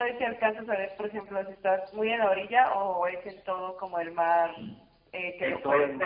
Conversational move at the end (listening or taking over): taking over